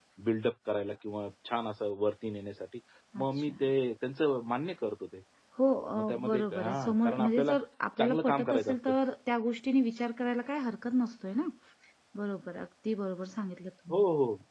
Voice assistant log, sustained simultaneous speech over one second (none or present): present